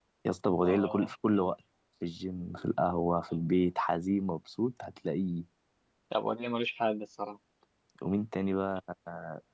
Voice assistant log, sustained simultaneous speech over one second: none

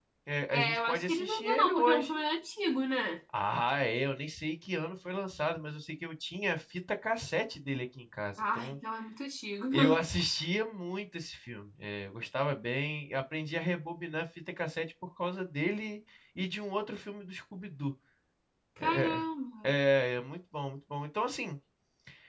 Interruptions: present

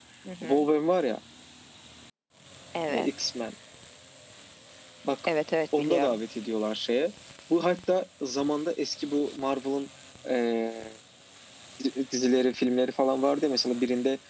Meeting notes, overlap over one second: none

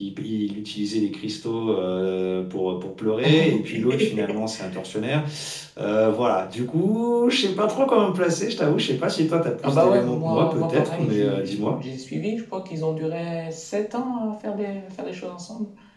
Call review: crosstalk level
present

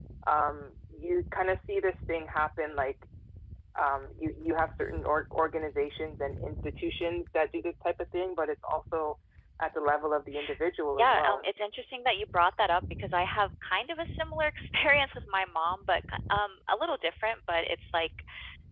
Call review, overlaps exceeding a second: none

